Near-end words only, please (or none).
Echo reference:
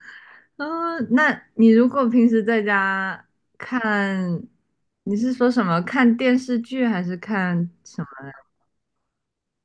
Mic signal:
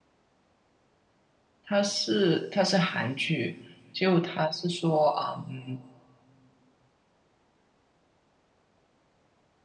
它是它是韩剧，就它是说啊，嗯。